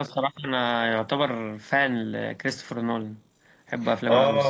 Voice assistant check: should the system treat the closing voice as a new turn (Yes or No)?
Yes